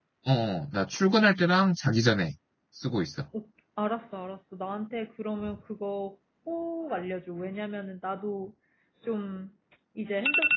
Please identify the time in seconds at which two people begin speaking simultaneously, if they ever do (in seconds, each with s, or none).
none